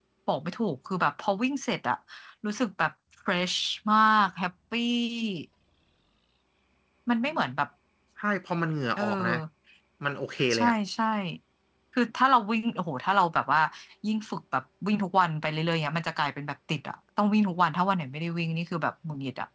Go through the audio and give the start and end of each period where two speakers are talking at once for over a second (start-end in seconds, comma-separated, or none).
none